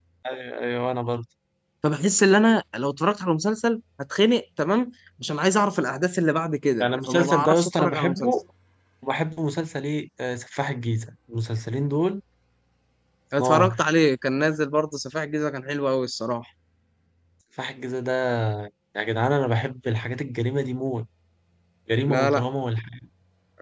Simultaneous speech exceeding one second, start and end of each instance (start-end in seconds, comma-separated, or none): 6.8-8.3